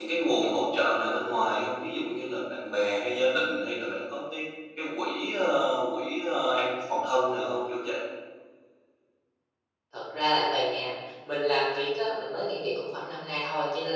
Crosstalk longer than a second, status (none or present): none